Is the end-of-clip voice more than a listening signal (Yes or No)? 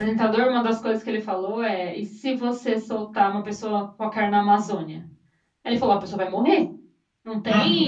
Yes